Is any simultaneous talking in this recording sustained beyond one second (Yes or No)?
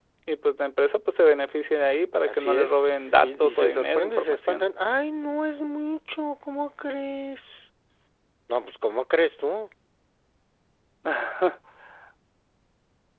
Yes